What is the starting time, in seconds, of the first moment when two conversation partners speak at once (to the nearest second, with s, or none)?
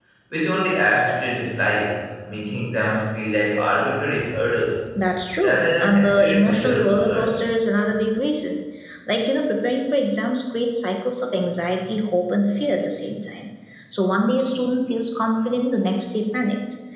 5 s